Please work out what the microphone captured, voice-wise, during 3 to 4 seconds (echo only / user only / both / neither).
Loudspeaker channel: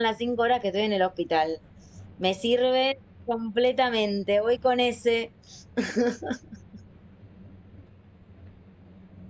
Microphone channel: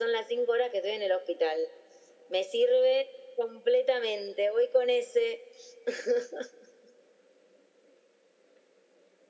echo only